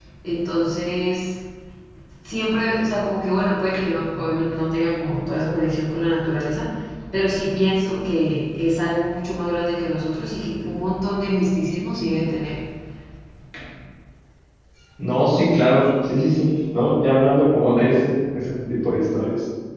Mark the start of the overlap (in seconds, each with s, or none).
none